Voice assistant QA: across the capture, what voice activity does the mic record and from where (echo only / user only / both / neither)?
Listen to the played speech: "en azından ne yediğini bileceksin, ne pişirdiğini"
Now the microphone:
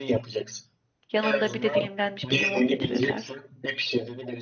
both